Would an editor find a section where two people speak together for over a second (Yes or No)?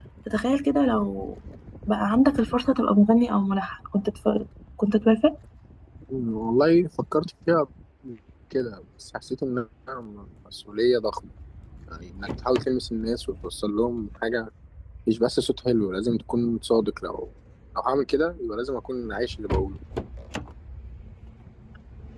No